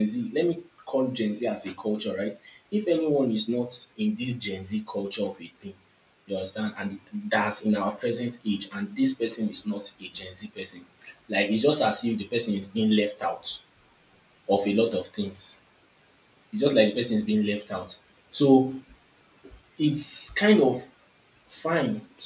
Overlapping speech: No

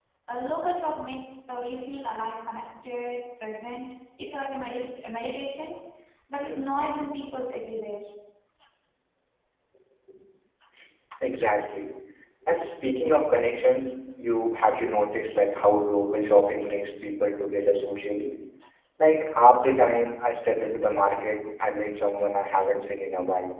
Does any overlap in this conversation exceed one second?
No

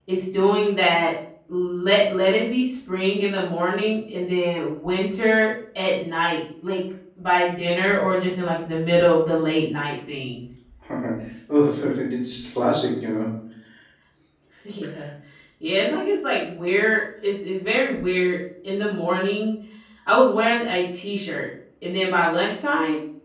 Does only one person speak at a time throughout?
Yes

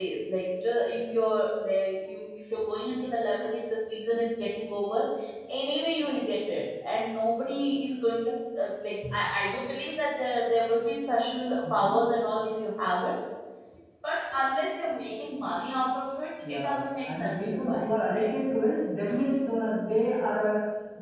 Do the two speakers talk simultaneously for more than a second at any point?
Yes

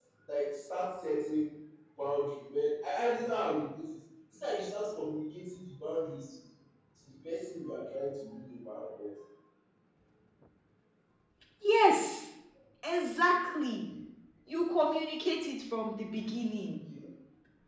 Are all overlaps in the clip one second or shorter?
Yes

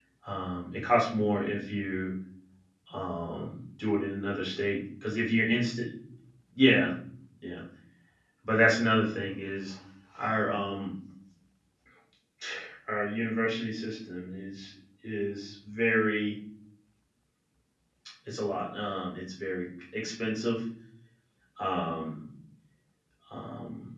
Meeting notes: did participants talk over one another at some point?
No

